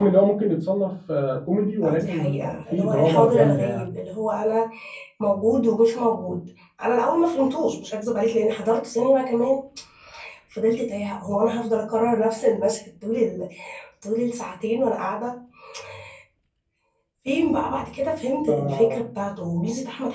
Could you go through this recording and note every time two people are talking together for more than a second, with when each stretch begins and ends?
1.8-3.9

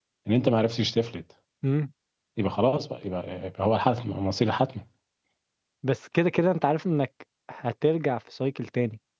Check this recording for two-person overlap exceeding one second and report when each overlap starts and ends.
none

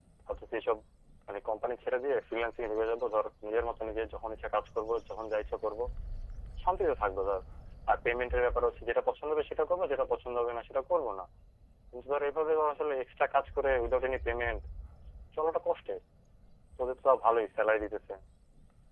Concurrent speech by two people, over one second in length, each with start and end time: none

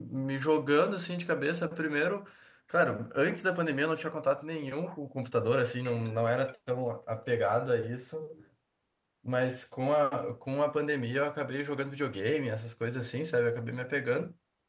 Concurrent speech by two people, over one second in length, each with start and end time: none

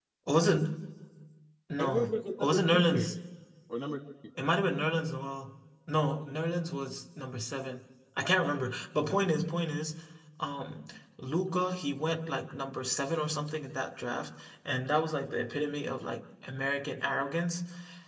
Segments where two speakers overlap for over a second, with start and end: 1.8-3.1

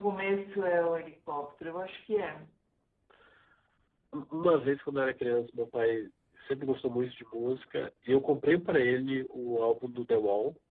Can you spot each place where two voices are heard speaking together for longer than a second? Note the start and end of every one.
none

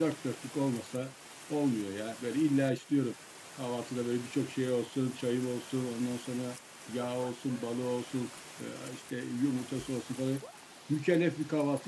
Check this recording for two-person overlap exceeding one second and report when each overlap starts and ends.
none

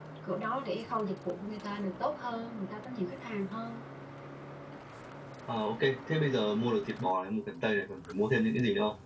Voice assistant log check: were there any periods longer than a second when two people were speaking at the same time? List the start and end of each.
none

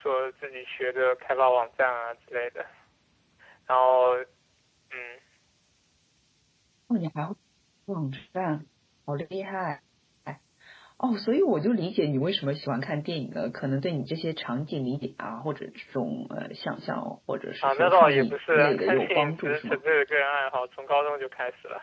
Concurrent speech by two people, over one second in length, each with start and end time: 17.6-19.8

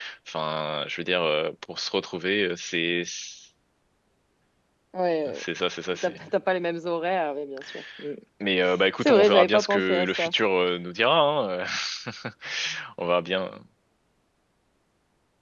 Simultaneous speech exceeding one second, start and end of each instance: 9.0-10.3

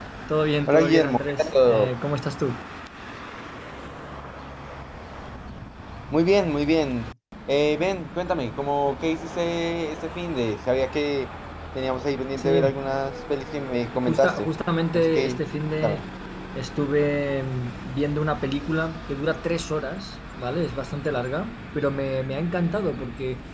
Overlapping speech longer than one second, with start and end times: 0.7-1.9

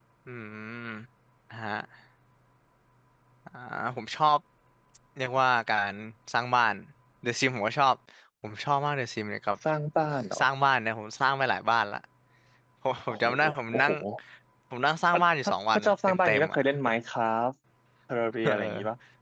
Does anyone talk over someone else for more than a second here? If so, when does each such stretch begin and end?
15.1-16.6

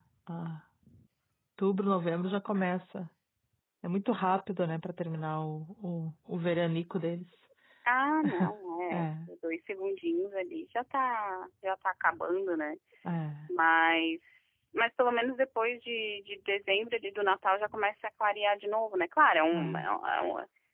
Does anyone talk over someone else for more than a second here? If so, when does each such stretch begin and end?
none

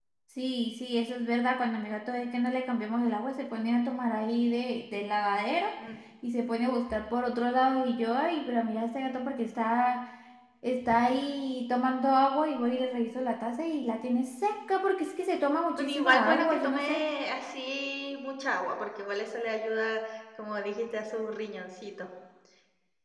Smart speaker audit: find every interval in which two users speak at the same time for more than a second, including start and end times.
15.8-17.1

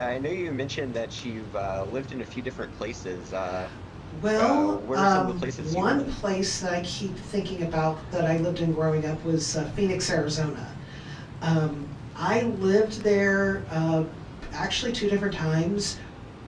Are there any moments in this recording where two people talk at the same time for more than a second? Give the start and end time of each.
4.4-6.2

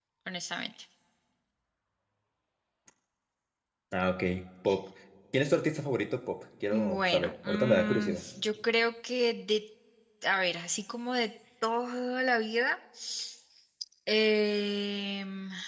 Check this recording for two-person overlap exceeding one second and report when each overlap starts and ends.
6.7-8.2

